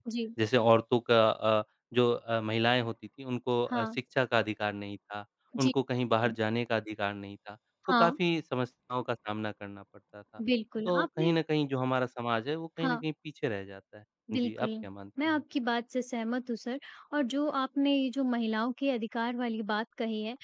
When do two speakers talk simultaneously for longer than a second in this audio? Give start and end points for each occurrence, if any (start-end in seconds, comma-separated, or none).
none